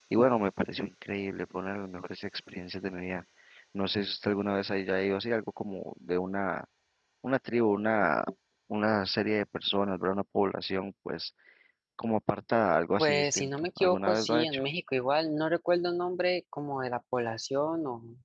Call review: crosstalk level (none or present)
present